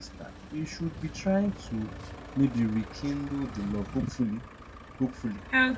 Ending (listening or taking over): listening